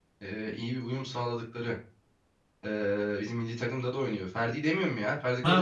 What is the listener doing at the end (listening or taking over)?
taking over